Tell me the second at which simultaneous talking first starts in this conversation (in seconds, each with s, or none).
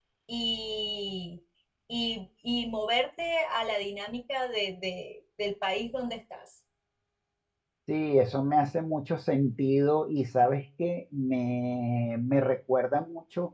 none